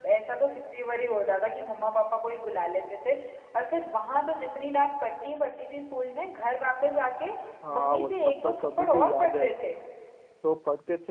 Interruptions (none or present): present